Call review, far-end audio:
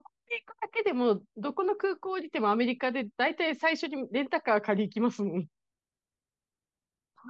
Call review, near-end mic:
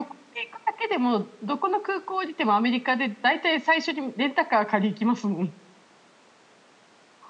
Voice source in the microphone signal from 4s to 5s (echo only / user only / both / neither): echo only